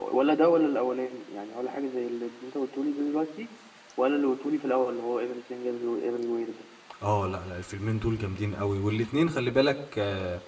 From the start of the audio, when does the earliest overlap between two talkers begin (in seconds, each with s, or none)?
none